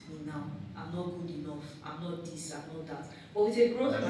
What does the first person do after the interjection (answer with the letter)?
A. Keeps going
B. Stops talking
A